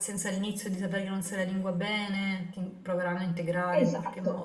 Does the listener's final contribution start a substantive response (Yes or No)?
Yes